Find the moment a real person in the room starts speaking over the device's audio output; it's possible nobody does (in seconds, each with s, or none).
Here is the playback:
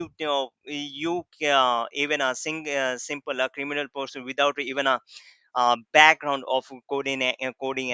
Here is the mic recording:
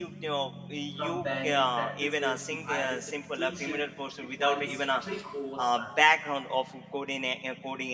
0.9 s